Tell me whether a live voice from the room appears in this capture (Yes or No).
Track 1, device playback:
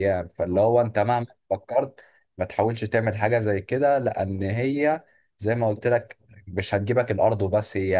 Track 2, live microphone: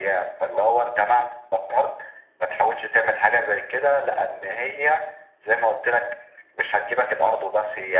No